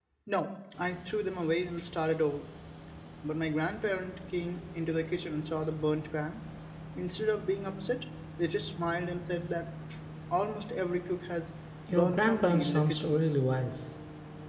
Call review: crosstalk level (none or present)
present